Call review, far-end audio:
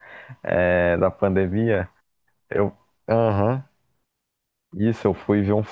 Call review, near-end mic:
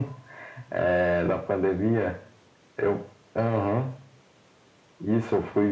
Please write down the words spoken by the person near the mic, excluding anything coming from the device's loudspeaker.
none

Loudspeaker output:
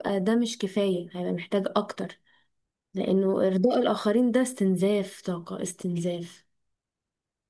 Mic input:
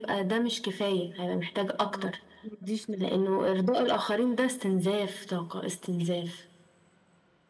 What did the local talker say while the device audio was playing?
اه مديش نفس

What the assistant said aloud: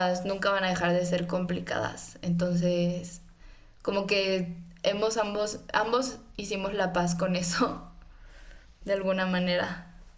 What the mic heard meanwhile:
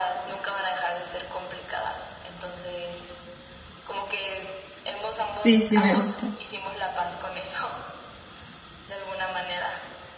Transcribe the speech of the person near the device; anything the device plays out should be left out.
Sí, sí me gusta.

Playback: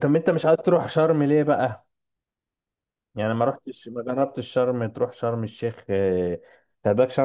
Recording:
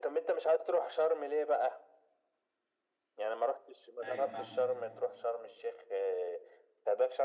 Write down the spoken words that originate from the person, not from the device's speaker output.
ايوه فاهم

